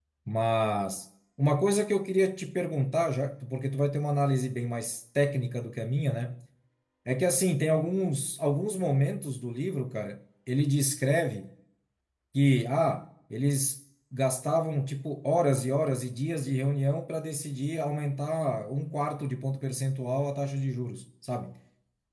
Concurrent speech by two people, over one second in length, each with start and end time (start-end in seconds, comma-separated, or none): none